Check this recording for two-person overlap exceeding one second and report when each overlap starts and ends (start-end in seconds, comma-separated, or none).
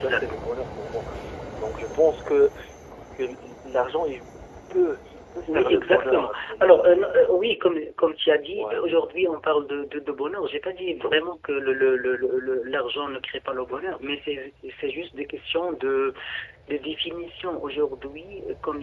5.5-7.0